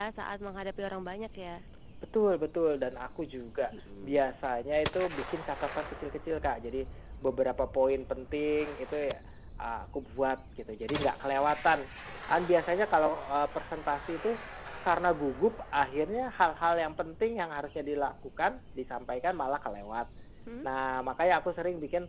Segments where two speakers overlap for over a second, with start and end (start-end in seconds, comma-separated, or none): none